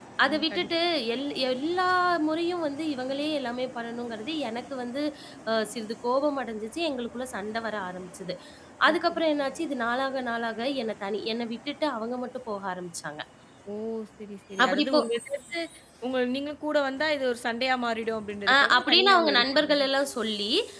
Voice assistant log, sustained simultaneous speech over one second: present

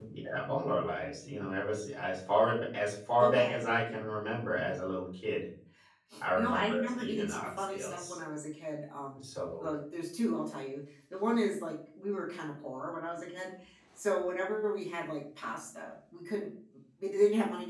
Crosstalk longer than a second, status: present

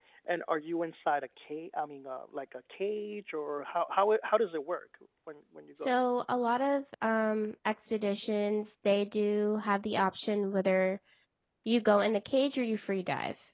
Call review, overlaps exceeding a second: none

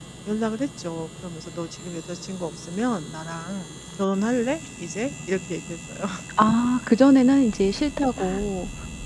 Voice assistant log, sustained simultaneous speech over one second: none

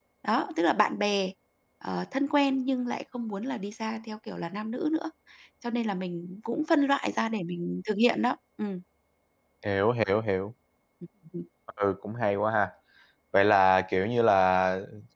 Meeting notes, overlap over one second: none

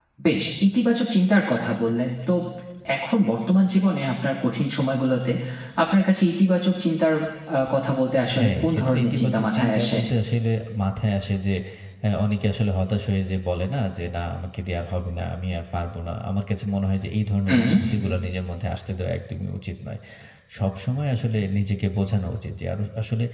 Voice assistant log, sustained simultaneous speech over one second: present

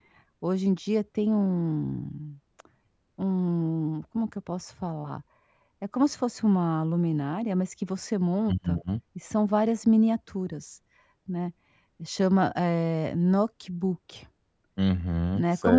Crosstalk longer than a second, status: none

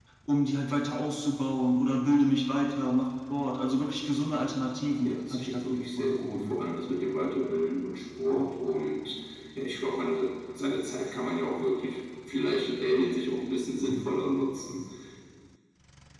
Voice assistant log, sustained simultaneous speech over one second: present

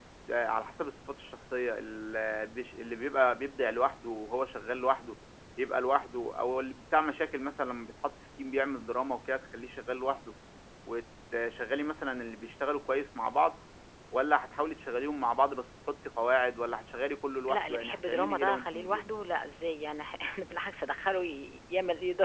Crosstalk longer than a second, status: present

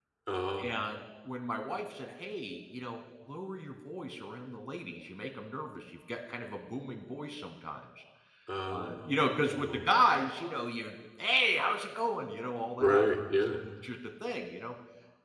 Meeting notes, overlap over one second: present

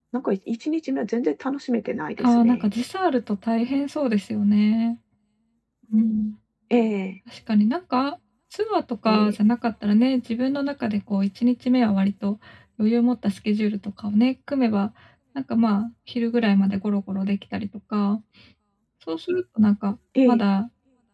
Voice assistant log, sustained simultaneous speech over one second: none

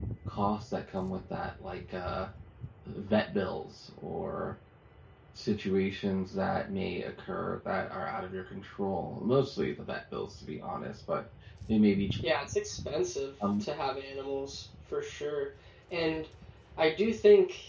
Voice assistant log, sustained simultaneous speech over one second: none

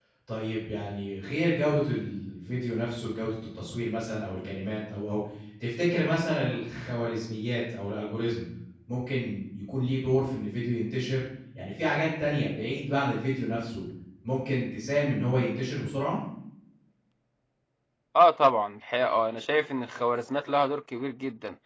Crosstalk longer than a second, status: none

